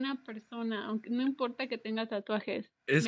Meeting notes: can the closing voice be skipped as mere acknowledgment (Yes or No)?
No